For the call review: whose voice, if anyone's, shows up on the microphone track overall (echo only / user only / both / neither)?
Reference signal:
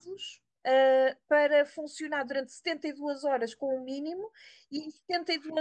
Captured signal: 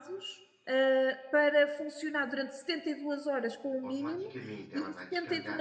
both